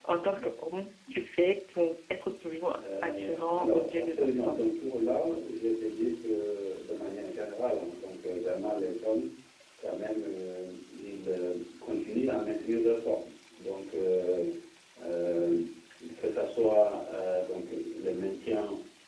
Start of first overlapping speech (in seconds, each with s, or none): 2.7 s